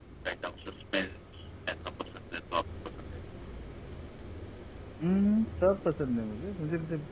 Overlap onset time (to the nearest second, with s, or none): none